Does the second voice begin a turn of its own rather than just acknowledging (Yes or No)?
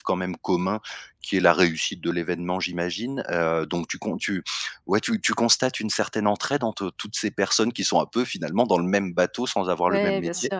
Yes